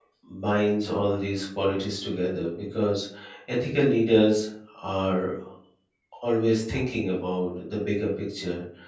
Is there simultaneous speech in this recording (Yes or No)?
No